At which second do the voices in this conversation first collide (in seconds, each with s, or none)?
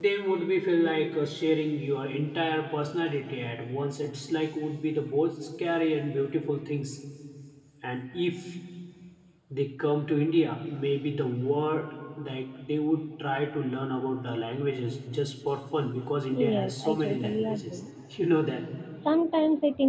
16.3 s